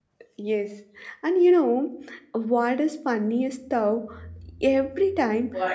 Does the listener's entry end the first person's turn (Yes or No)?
No